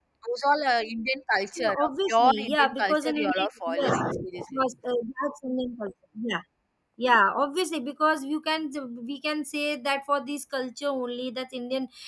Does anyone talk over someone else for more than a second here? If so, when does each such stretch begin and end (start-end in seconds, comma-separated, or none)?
1.6-4.4